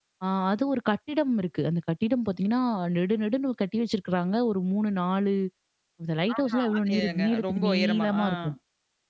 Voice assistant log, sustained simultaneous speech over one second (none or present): present